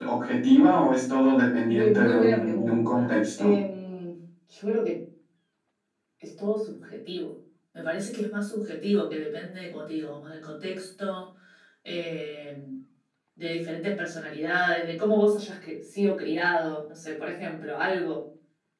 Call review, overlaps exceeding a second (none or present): present